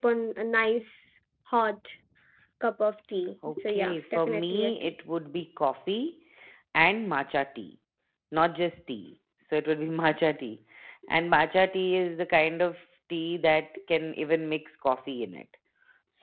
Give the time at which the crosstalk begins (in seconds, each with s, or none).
3.4 s